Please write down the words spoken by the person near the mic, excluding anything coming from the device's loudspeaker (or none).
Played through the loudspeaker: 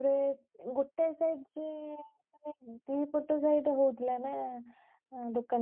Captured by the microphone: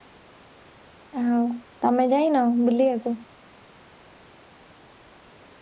ଆଉ ତମେ ଯାଇନ ବୁଲିବାକୁ।